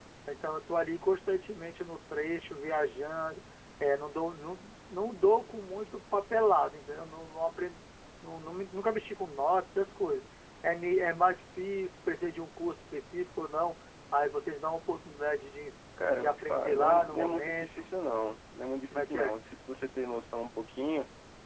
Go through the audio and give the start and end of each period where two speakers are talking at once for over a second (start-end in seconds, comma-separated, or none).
16.2-17.9